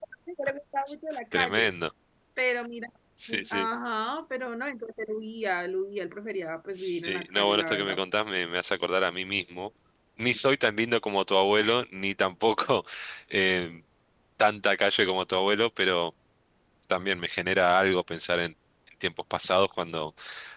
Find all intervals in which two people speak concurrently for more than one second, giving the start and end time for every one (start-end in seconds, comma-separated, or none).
6.7-8.0